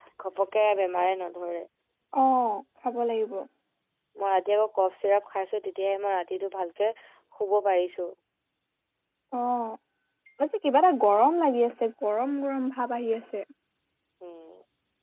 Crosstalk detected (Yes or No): No